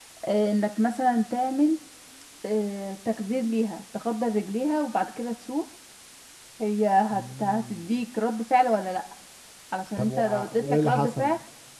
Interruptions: present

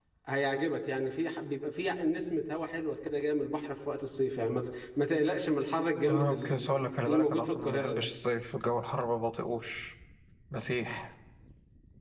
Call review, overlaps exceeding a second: present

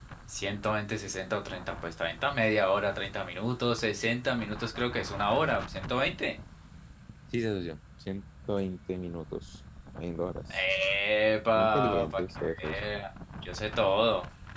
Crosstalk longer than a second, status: present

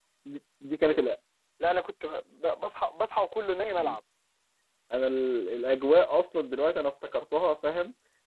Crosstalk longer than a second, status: none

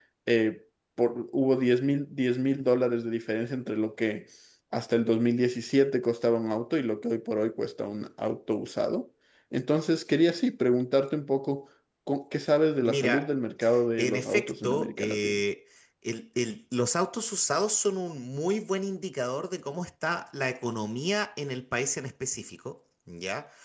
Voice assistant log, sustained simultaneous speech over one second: present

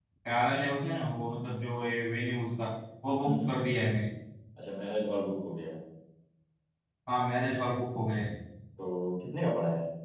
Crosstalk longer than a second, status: none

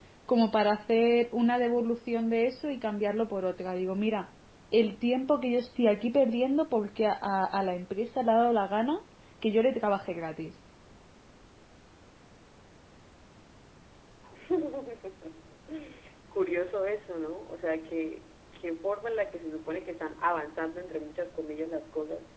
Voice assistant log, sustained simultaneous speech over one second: none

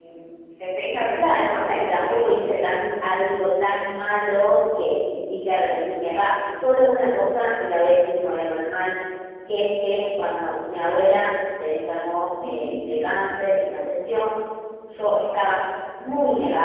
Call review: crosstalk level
present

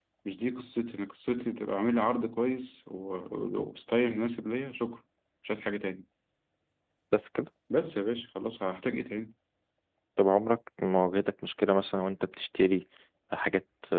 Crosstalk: none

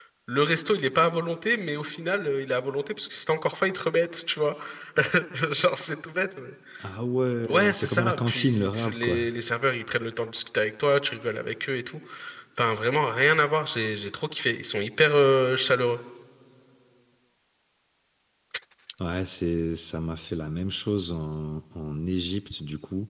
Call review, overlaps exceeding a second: present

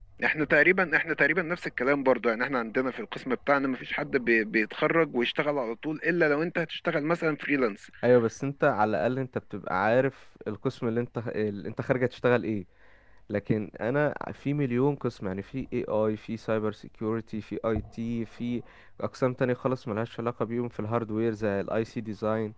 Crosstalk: none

